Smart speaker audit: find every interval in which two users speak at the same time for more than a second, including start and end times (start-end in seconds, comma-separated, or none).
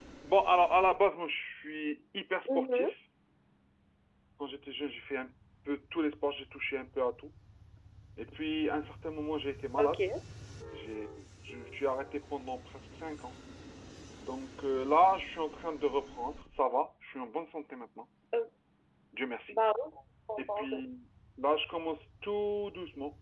none